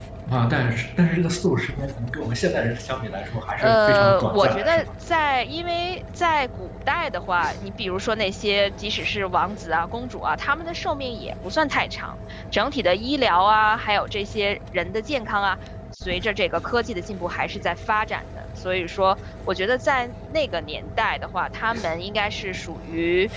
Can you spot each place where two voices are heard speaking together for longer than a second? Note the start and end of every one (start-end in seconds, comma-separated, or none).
3.6-4.8